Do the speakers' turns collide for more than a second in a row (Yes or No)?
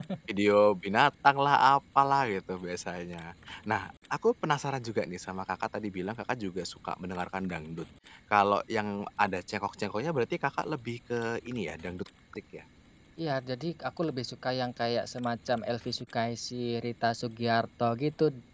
No